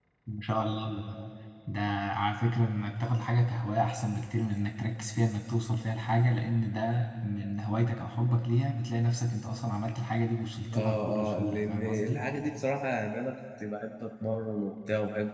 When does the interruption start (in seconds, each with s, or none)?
10.7 s